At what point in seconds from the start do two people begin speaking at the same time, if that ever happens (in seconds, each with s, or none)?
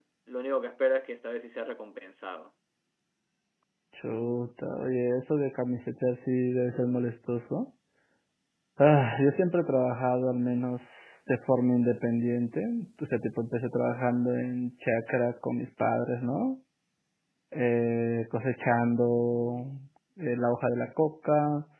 none